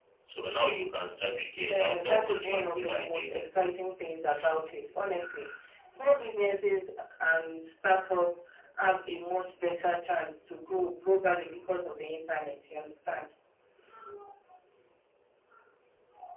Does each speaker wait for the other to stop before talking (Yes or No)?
No